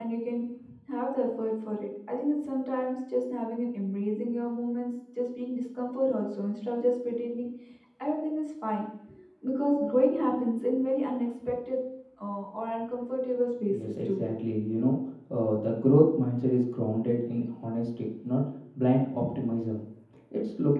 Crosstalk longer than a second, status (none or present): none